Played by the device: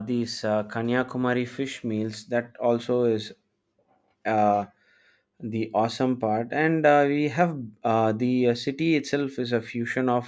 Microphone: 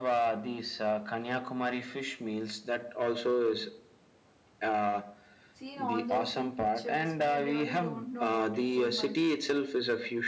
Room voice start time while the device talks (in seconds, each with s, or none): 5.5 s